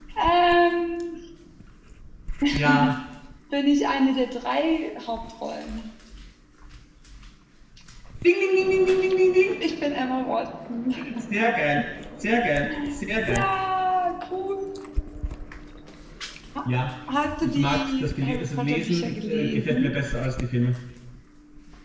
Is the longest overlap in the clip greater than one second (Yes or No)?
Yes